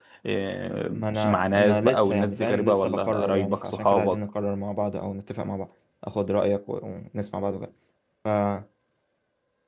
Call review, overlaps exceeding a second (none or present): present